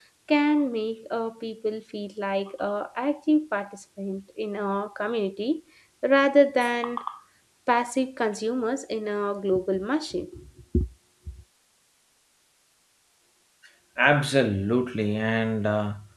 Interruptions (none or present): none